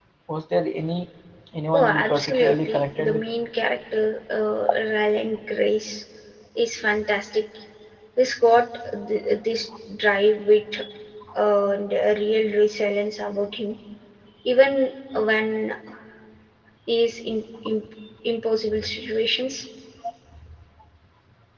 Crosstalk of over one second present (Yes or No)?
Yes